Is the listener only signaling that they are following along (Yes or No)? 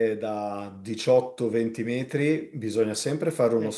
Yes